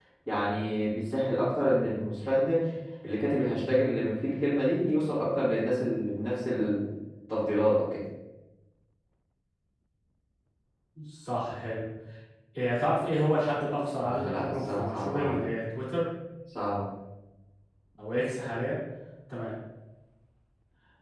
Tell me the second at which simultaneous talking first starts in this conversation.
14.0 s

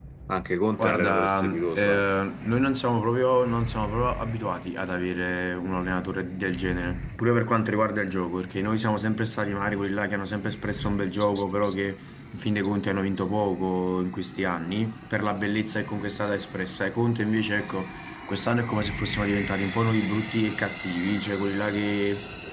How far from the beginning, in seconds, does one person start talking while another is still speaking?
0.8 s

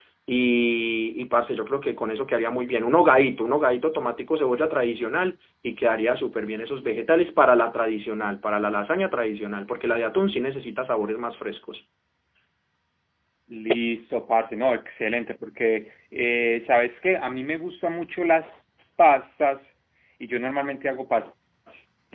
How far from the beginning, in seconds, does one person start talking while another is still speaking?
none

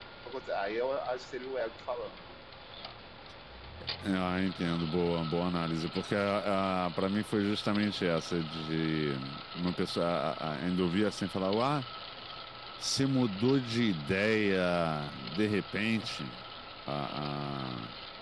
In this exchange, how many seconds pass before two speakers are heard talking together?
none

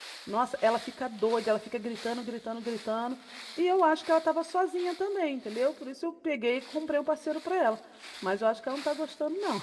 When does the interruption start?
none

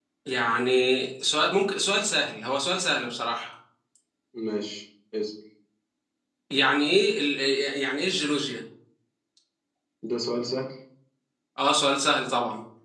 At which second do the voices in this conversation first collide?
none

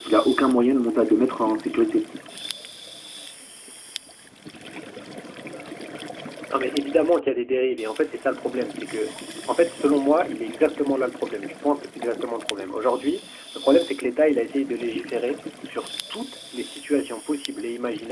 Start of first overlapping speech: none

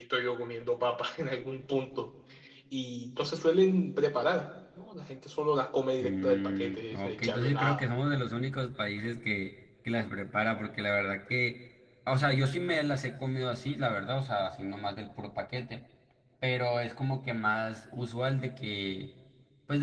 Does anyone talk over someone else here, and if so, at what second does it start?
6.0 s

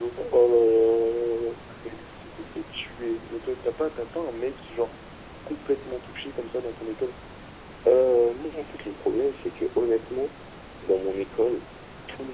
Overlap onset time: none

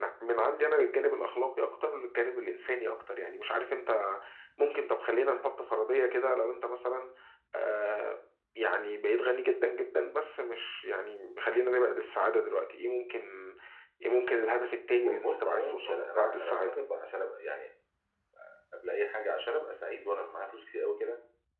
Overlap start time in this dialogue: 15.0 s

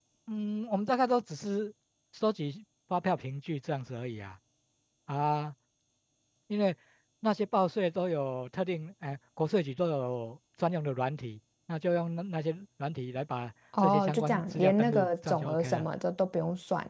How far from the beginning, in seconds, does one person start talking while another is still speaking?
13.7 s

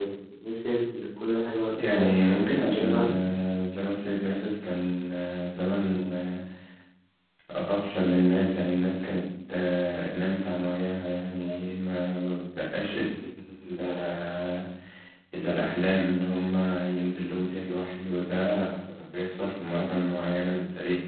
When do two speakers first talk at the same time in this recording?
1.8 s

